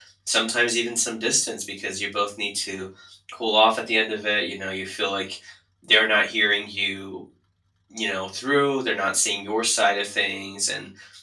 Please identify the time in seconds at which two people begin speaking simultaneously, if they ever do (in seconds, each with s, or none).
none